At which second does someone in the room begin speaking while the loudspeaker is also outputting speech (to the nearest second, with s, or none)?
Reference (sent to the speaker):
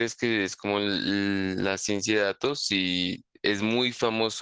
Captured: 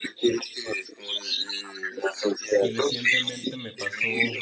3 s